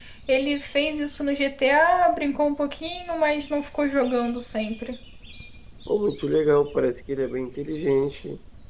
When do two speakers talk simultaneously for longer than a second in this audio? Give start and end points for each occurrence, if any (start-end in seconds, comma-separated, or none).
none